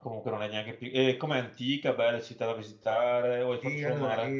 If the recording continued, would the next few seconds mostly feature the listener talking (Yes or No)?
Yes